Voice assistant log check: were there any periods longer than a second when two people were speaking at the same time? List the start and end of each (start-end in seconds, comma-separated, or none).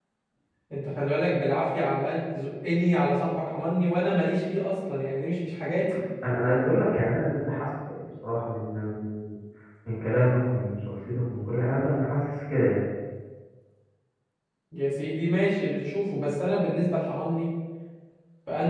none